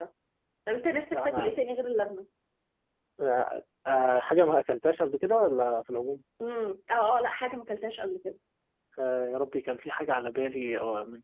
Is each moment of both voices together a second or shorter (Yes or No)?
Yes